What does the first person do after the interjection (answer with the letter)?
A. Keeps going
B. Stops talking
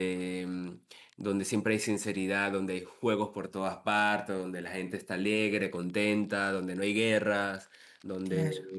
A